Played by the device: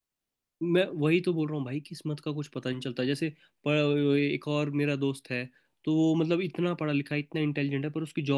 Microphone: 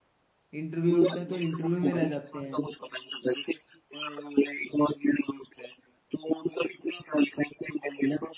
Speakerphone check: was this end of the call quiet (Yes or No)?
No